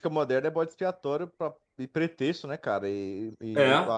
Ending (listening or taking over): listening